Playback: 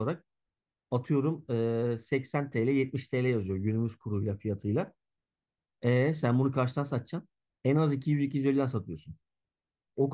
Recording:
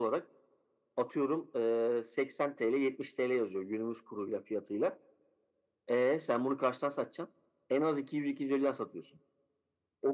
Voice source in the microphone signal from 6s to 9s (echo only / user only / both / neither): echo only